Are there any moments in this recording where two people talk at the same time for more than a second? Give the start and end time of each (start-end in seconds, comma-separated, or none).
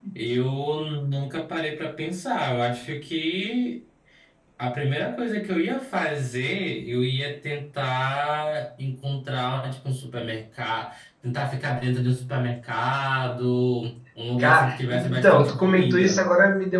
14.4-16.2